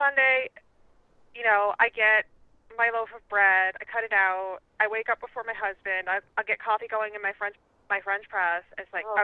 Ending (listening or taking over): listening